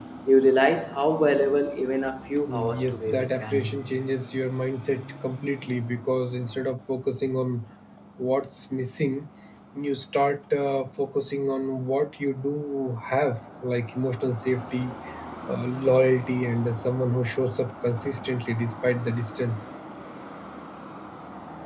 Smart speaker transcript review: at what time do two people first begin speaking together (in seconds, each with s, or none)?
2.5 s